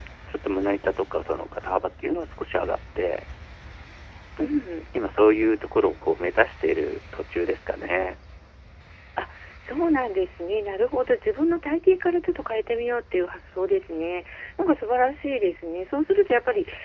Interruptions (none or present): none